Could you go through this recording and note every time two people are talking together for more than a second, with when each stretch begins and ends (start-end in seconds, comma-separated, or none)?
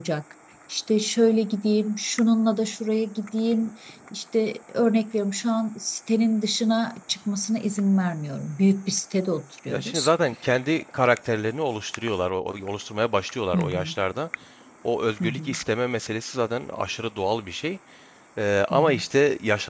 none